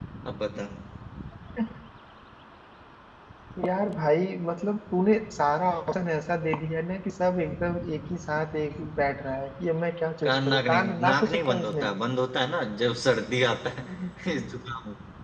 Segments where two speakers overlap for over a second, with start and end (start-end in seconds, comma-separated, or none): 10.2-11.8